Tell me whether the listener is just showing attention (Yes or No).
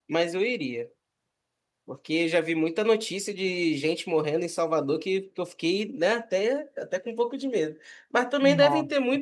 Yes